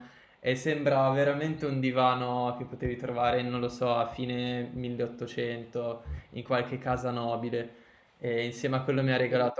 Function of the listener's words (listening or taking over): listening